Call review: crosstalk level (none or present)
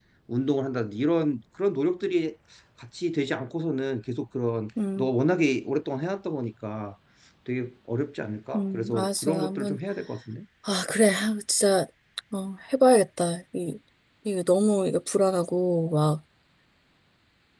present